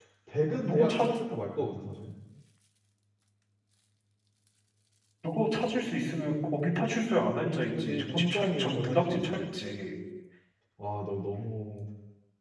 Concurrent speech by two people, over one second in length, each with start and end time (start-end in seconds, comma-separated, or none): 7.8-9.4